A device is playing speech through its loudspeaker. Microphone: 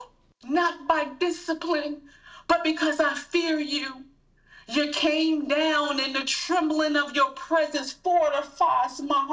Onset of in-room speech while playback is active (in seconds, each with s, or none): none